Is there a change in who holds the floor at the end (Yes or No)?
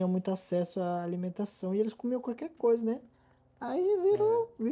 No